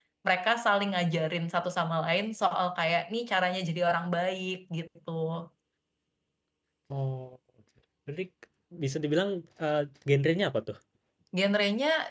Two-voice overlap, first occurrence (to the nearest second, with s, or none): none